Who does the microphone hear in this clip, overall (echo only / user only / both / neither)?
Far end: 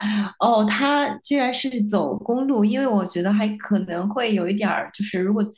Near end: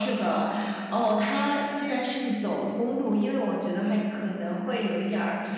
echo only